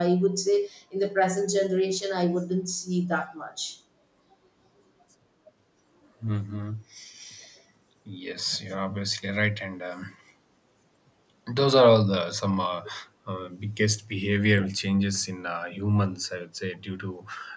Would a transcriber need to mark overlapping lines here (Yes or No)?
No